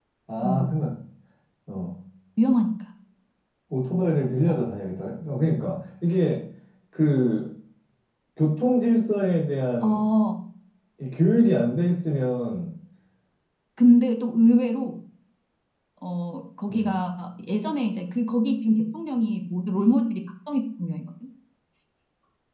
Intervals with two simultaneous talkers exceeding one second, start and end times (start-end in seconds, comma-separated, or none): none